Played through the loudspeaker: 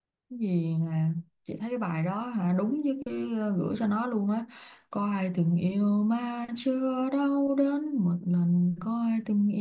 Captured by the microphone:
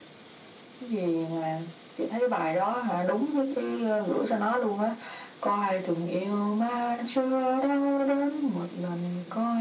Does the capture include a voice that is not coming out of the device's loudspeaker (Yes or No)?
No